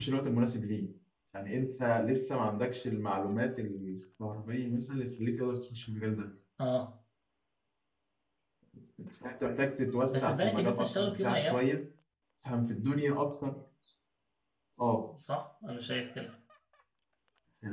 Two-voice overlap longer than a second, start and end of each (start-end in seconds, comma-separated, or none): 10.1-11.6